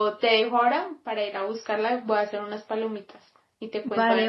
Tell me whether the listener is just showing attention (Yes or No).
No